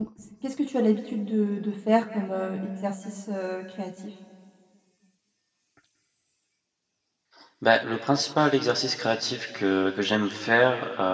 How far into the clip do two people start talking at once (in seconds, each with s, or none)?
none